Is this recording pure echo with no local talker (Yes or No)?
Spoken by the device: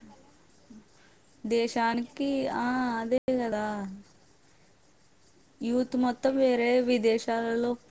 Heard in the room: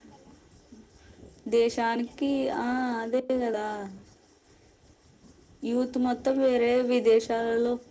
Yes